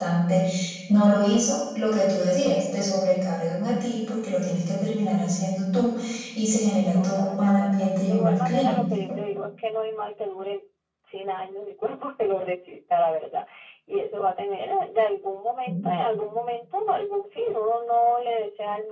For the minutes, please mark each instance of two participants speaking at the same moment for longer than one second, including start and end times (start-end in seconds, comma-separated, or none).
6.9-8.8